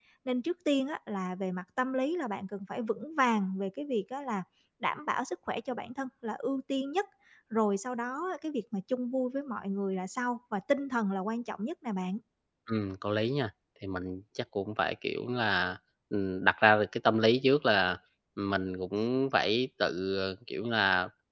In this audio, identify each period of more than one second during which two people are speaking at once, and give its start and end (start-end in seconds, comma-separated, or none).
none